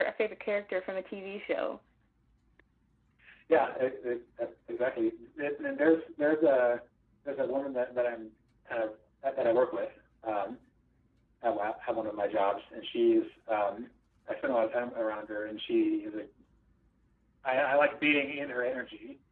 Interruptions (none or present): none